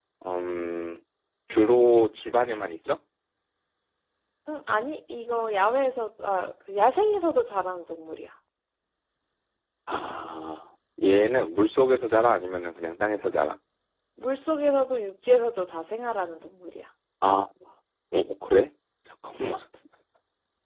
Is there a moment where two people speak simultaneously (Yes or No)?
No